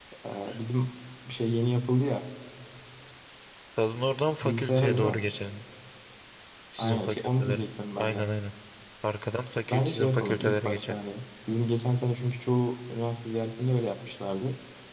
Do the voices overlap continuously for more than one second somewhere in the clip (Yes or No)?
Yes